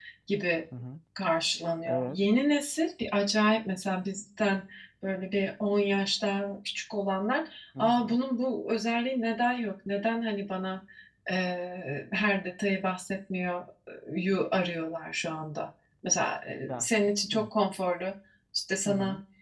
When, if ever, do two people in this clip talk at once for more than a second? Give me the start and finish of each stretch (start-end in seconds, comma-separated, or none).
none